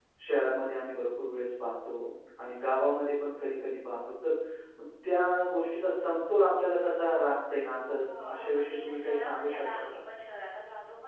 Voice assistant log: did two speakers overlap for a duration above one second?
Yes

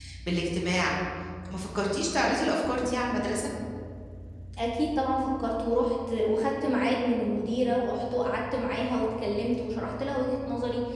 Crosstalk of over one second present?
No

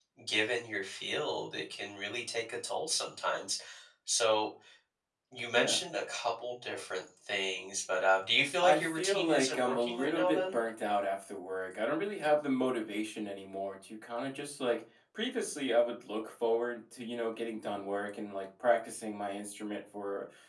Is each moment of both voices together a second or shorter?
No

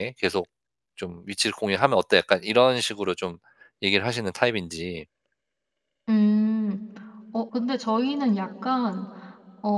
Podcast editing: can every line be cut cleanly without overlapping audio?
Yes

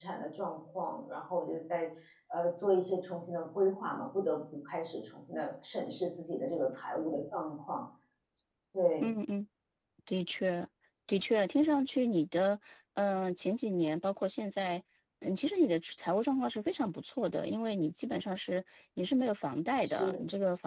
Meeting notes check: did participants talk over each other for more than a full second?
No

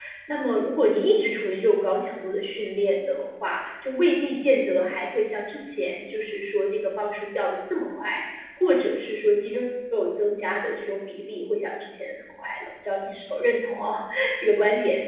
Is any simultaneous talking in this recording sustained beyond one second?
No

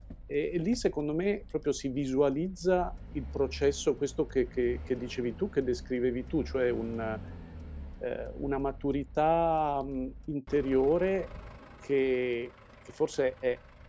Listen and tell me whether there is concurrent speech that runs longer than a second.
No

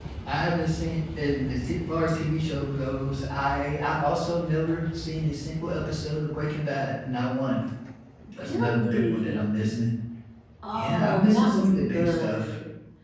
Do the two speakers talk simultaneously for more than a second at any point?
Yes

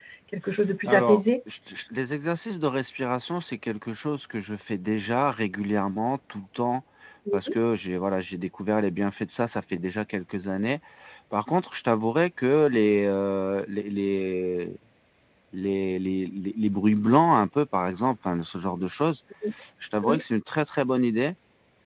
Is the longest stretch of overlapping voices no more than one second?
Yes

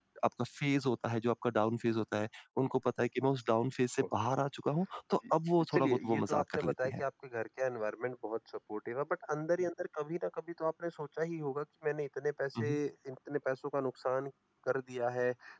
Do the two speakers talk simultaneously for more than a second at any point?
Yes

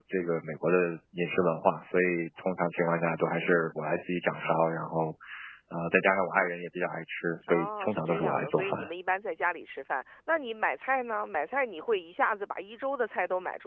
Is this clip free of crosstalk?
No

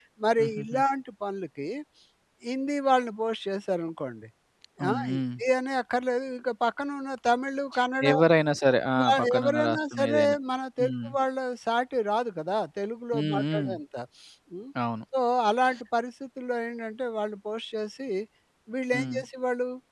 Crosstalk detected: Yes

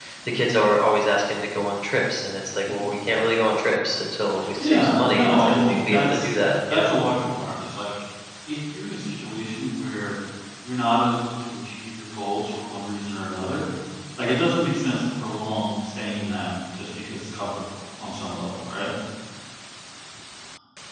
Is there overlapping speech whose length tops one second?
Yes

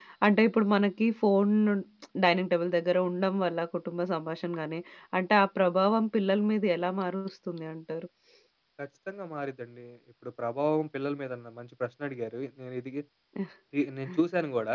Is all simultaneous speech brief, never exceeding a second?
Yes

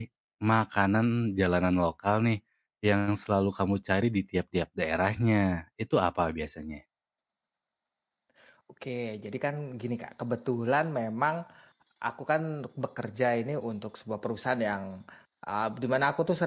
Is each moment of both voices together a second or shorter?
Yes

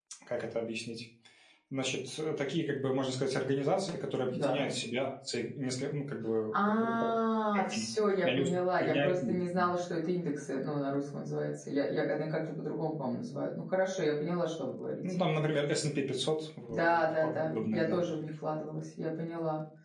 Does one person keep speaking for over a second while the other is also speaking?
Yes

